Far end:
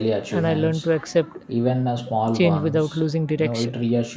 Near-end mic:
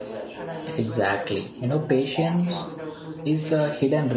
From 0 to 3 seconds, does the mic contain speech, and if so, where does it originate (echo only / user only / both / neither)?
both